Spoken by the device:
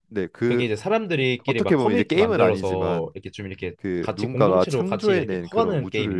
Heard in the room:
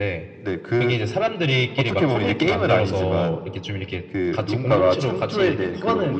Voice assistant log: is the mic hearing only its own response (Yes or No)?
Yes